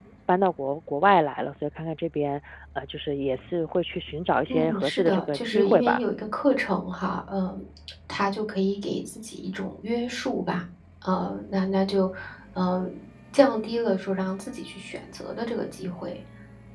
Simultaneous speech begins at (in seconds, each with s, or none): 4.5 s